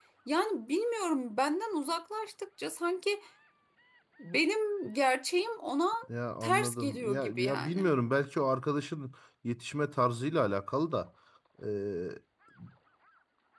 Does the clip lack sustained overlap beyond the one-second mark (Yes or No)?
No